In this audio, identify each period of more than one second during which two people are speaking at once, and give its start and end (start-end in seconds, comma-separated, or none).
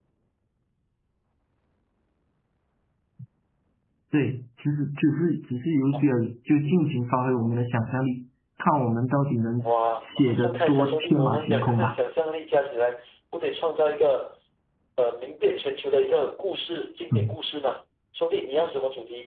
10.0-12.0